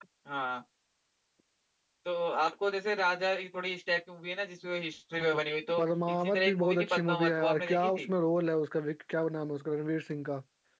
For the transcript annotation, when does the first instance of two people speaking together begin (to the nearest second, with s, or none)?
6 s